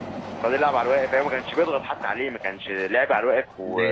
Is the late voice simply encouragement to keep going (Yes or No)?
No